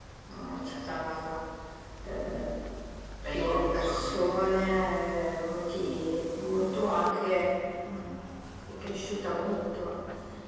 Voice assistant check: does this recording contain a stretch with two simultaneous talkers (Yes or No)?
Yes